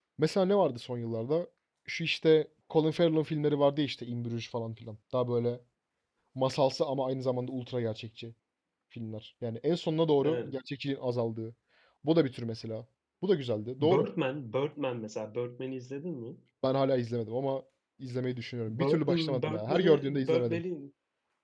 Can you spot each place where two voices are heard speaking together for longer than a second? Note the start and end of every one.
18.7-20.6

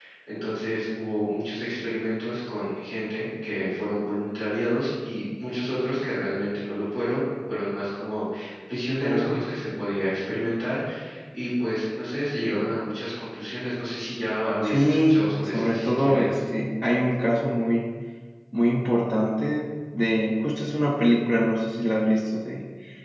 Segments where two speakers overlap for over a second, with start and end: 14.6-16.4

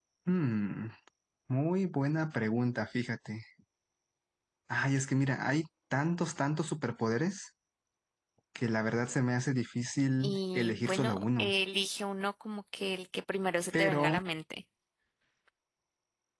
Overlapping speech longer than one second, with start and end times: 10.2-11.5

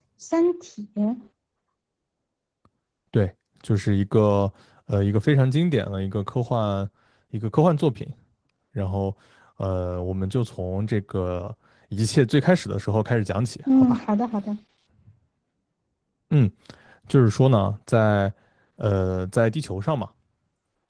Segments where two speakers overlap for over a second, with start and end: none

